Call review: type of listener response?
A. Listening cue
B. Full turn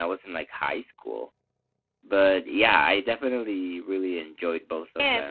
B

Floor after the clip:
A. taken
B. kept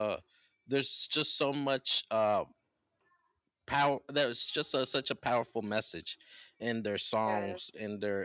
B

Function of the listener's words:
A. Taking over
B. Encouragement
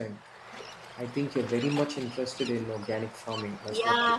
A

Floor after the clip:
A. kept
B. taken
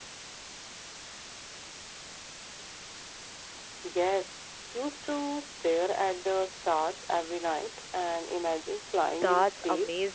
B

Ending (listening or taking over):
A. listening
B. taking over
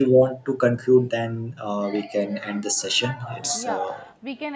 B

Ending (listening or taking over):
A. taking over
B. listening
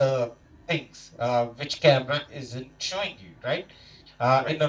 B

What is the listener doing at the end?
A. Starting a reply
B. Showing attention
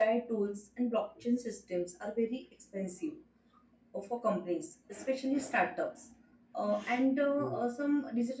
B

